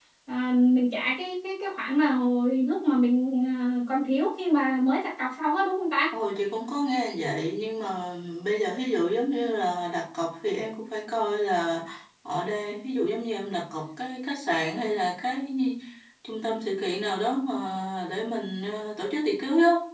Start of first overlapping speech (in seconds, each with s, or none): none